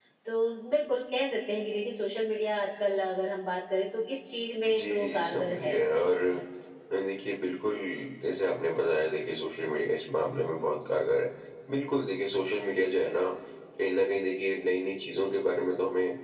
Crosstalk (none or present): present